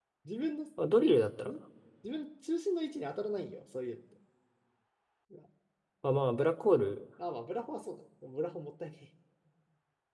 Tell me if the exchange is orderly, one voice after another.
Yes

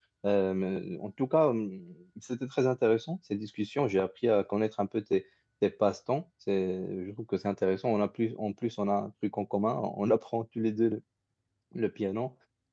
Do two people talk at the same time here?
No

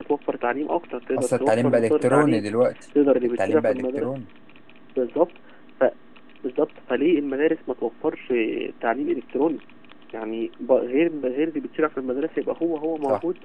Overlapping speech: Yes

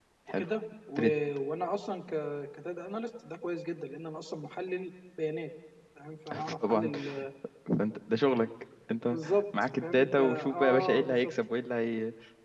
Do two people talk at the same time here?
Yes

